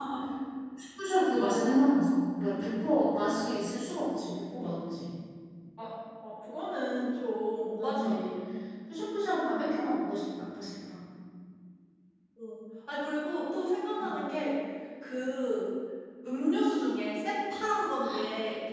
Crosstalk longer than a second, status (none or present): none